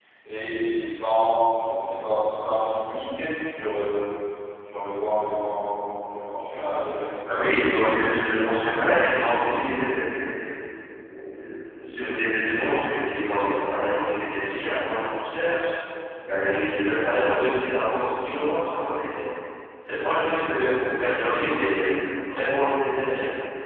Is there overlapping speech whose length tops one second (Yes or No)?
No